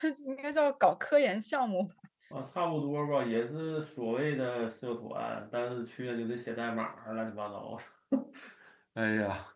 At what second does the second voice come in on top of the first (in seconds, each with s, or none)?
none